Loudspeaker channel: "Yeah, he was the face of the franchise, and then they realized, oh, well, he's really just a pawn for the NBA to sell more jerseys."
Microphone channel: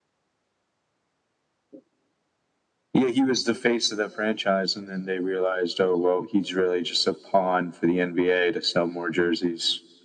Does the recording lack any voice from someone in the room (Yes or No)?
Yes